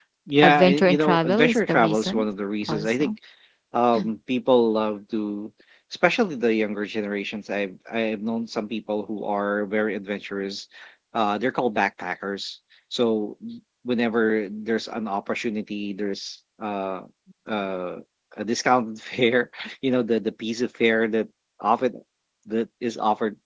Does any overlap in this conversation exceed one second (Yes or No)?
Yes